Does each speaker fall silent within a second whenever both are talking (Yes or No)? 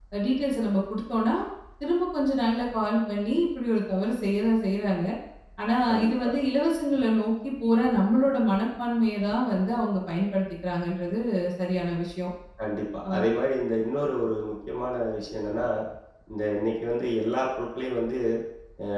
Yes